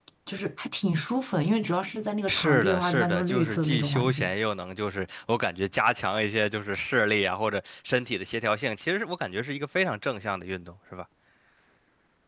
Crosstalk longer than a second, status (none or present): present